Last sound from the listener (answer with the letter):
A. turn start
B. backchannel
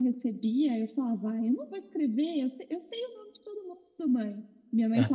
B